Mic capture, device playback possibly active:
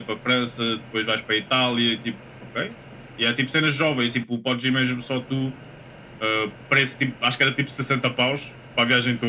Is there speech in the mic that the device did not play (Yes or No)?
No